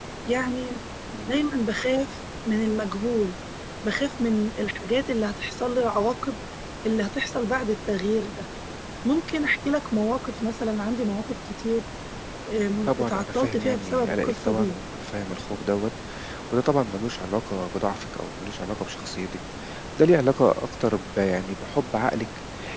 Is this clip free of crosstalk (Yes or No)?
No